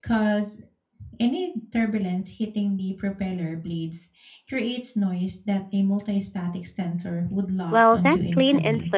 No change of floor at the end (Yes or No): No